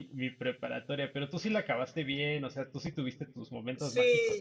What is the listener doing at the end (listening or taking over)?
taking over